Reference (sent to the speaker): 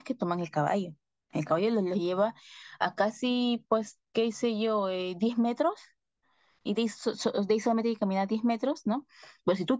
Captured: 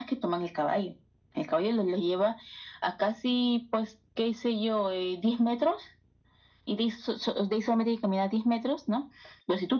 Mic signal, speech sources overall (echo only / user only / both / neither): echo only